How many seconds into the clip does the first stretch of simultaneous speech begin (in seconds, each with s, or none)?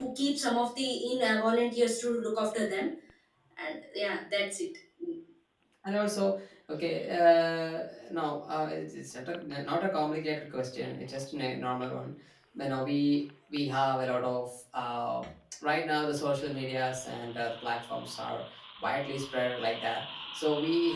none